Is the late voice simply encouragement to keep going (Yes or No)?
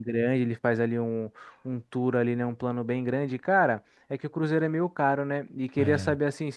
Yes